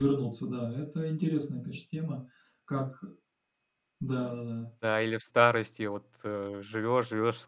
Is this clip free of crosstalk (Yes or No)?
Yes